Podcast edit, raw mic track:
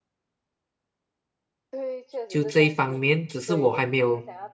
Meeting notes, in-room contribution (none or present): present